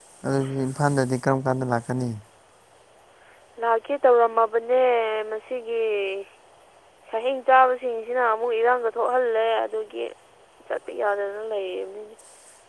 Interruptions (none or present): none